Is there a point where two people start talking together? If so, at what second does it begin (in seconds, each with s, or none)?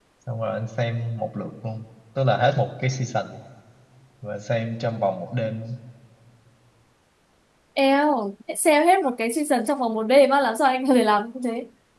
none